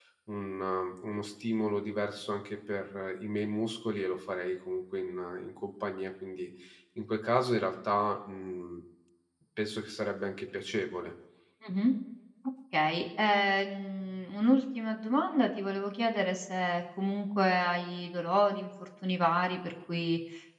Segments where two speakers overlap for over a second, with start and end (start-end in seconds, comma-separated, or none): none